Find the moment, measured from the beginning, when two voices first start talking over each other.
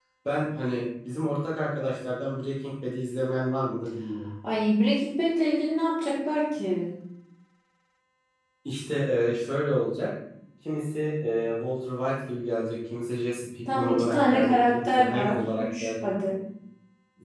13.7 s

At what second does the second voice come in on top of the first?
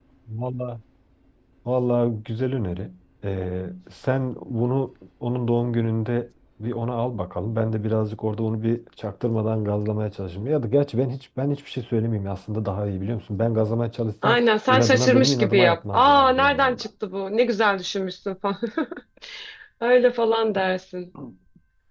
14.2 s

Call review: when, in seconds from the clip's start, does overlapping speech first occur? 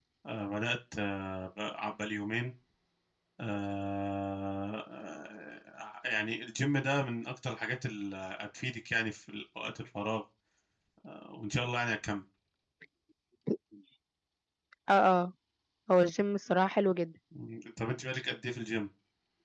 none

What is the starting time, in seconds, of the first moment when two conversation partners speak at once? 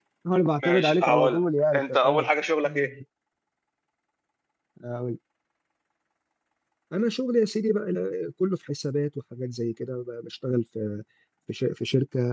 0.6 s

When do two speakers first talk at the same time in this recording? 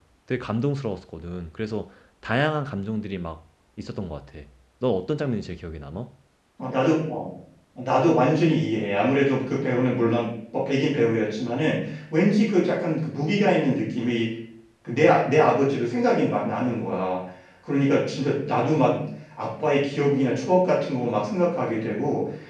none

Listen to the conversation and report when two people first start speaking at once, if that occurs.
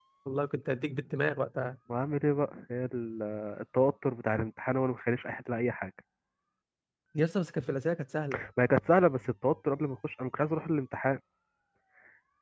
none

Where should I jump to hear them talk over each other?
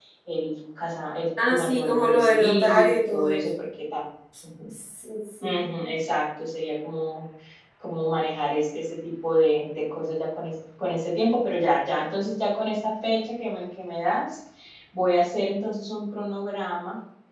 1.4 s

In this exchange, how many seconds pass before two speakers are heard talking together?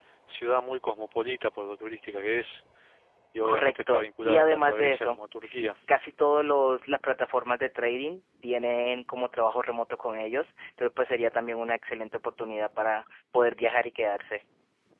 3.5 s

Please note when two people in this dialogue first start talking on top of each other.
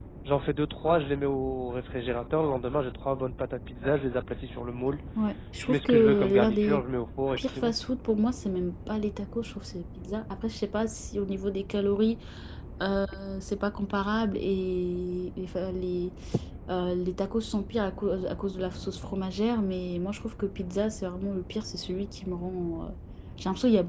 5.6 s

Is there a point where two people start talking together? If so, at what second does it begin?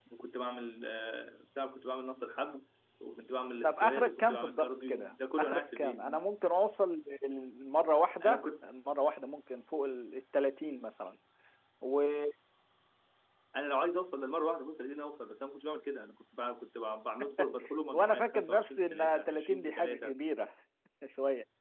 3.6 s

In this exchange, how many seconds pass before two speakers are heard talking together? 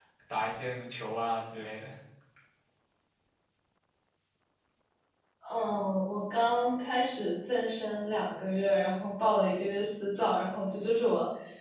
none

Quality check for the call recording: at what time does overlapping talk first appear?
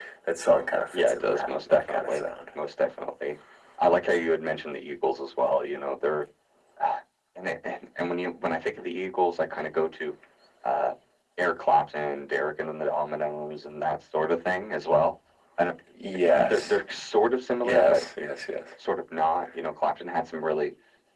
0.9 s

